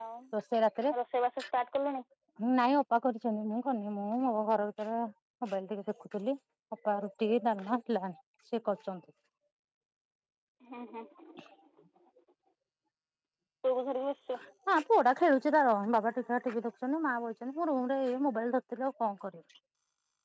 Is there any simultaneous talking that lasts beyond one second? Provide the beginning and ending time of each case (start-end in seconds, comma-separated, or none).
none